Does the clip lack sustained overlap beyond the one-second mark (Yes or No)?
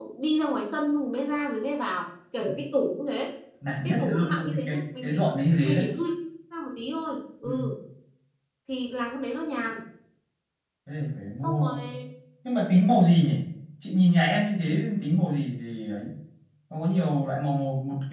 No